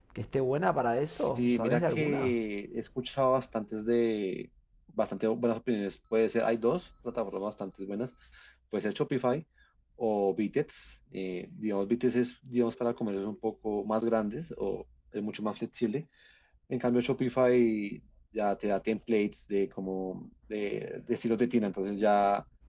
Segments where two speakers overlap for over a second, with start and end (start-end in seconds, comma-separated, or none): 1.1-2.4